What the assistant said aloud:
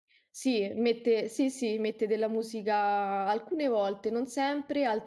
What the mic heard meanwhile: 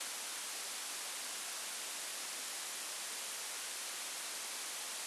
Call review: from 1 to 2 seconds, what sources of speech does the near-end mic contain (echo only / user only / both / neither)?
neither